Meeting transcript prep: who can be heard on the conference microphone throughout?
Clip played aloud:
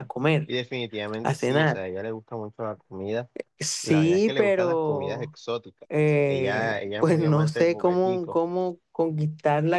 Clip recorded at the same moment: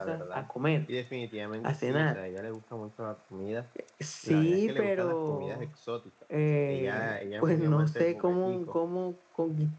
echo only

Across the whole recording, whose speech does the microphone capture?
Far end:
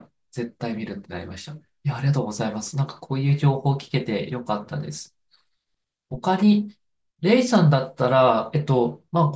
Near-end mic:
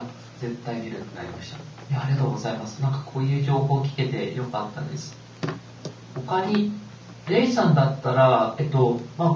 echo only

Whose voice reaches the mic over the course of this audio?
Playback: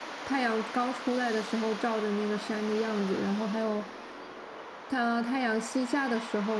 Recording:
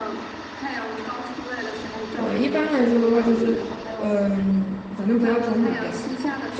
both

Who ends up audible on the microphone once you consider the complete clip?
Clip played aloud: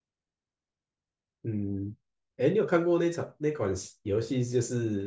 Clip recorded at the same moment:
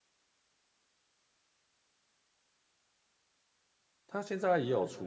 user only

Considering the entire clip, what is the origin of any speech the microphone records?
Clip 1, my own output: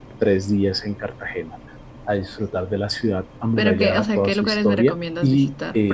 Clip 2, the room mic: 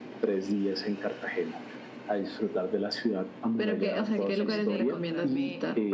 both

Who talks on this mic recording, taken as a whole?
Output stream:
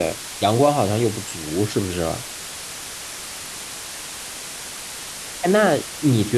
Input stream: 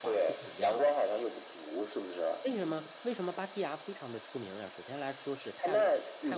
both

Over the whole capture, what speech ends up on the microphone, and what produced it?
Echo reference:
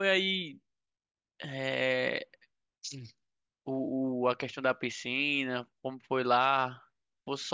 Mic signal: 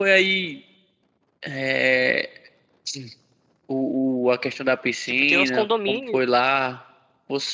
both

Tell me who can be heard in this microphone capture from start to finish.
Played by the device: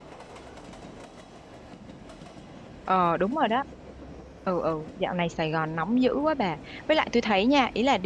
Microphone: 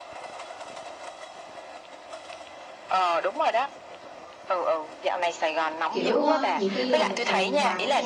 both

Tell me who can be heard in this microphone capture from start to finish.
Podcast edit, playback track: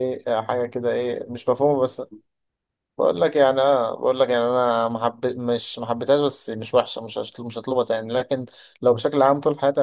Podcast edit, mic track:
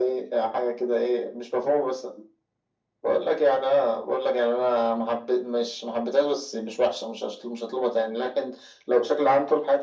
echo only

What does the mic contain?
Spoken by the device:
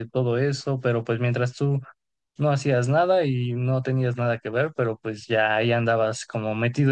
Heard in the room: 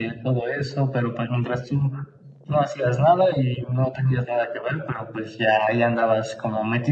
echo only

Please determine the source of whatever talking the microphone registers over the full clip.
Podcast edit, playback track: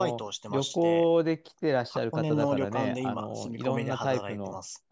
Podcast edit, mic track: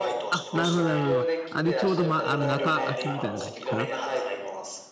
both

